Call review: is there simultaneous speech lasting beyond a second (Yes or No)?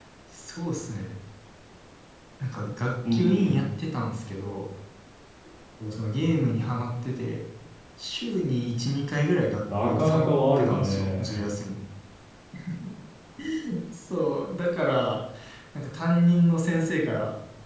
Yes